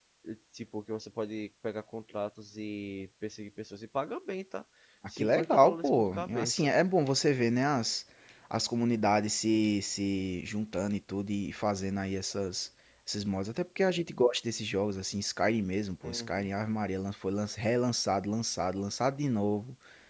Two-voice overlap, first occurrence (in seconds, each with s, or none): 5.2 s